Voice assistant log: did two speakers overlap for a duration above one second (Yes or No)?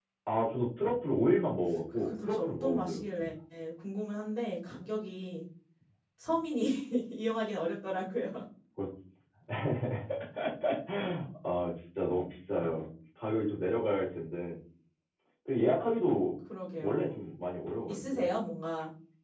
Yes